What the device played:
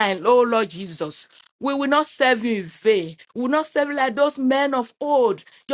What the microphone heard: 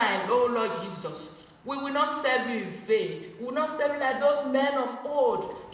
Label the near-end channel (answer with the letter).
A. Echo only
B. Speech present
A